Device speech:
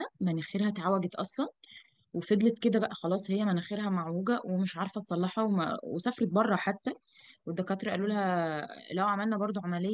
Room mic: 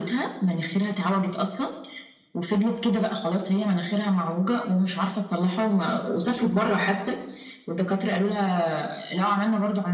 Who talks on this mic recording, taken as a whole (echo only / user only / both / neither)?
echo only